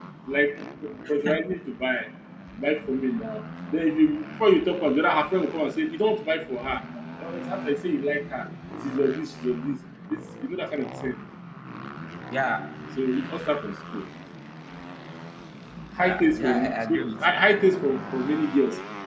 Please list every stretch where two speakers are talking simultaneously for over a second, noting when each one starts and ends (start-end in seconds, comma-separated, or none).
16.0-17.3